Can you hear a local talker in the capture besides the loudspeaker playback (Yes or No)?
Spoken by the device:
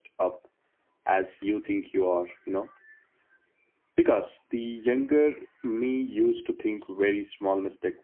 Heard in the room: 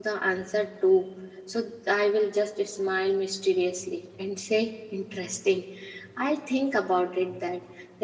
Yes